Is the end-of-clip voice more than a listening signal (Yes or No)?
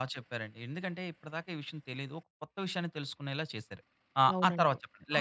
Yes